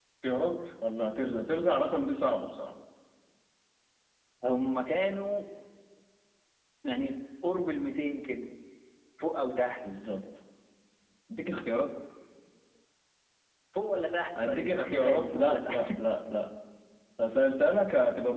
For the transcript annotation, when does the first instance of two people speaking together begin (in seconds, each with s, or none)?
14.5 s